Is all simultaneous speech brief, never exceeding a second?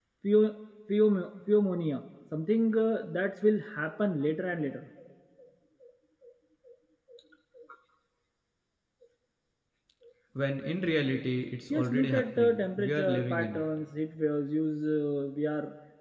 No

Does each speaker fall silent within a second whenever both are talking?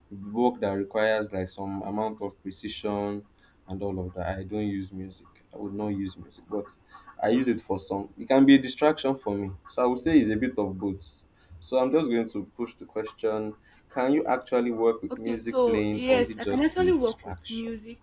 No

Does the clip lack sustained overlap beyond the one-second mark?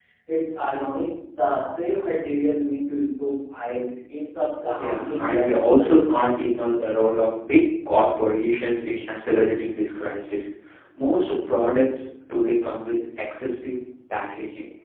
No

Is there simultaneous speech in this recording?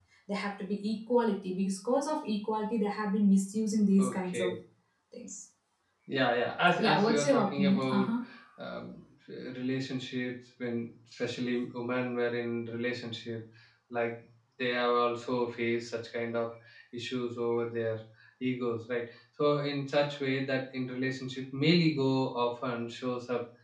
Yes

